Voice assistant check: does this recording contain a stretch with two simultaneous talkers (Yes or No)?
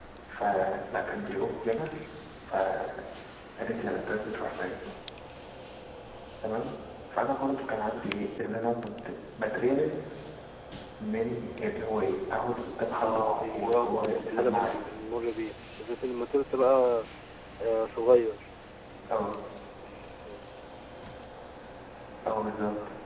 Yes